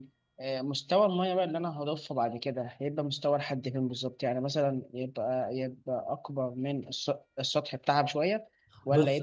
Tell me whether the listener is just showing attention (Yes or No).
Yes